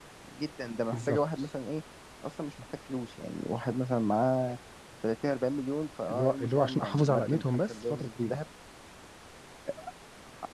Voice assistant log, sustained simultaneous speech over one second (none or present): present